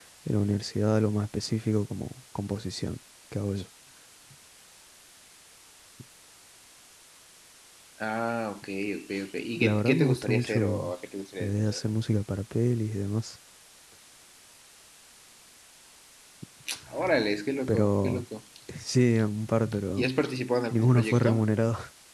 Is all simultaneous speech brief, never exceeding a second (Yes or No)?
No